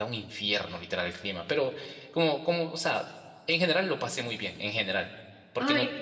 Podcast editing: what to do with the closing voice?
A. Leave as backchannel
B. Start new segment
A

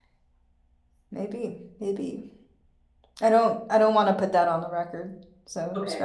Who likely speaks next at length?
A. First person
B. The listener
B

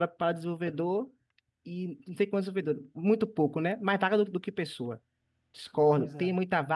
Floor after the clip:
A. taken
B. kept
B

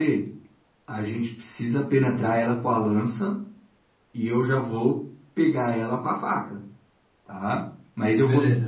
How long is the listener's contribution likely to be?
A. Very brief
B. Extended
A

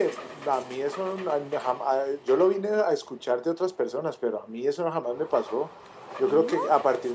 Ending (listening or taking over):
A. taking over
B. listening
B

